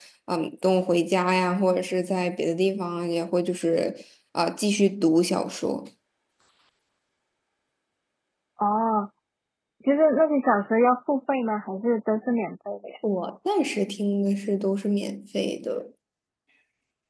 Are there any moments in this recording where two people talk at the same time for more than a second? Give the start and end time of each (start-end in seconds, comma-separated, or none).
none